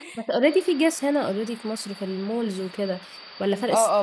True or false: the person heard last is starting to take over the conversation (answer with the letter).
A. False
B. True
B